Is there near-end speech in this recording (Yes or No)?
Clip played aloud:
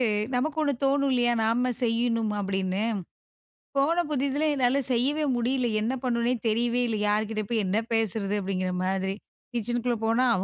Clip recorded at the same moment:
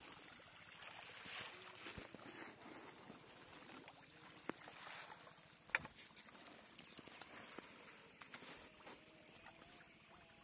No